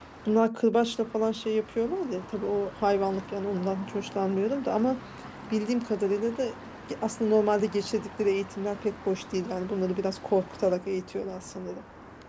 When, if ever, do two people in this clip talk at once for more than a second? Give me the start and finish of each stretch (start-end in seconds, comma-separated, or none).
none